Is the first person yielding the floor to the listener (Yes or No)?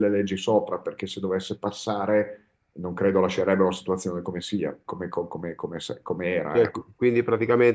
Yes